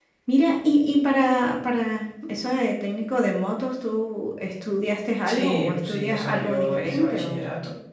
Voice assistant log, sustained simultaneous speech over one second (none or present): present